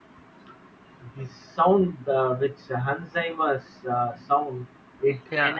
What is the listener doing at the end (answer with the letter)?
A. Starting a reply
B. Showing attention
B